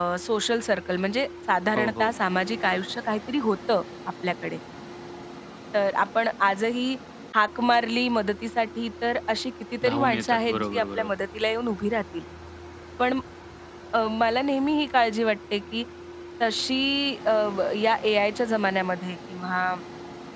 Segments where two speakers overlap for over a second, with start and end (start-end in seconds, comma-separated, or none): 9.8-11.1